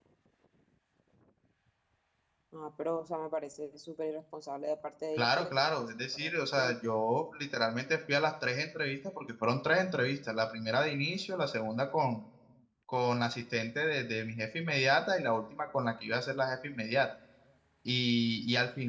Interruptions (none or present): present